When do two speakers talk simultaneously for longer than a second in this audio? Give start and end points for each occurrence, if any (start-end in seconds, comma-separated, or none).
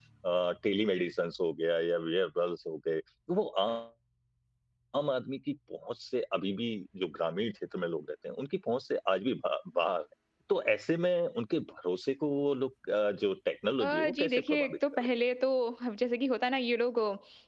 13.8-15.1